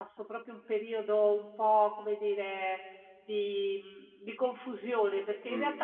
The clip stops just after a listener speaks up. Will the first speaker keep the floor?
Yes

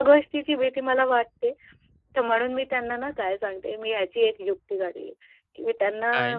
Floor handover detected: No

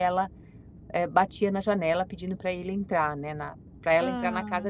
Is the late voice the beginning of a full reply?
No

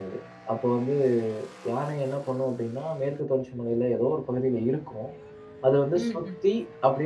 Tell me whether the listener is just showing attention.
Yes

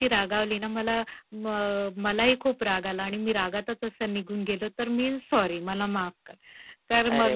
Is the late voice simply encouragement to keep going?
Yes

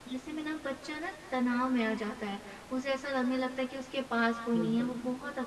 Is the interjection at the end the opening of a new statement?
No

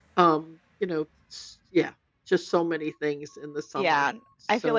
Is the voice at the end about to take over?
Yes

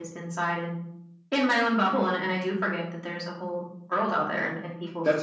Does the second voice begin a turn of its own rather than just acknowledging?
Yes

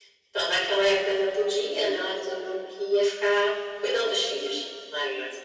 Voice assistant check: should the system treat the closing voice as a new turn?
Yes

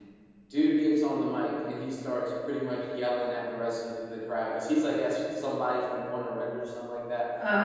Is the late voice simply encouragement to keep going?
Yes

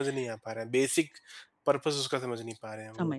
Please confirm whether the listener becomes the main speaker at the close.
Yes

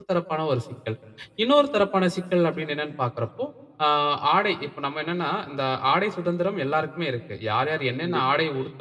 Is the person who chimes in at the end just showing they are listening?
Yes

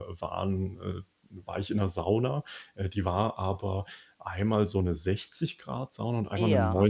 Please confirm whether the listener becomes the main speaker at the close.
No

